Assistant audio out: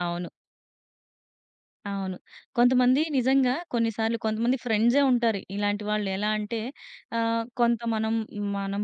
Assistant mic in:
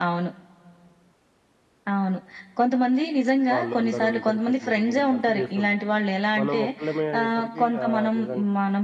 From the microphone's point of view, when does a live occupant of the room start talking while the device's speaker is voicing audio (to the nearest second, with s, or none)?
4 s